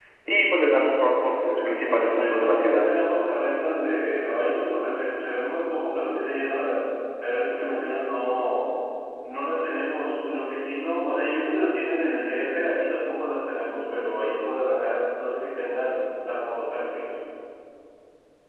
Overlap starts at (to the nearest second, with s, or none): 1 s